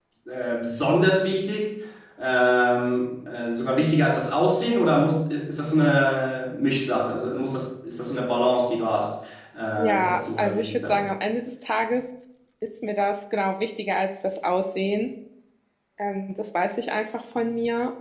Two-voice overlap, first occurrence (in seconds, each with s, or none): 9.8 s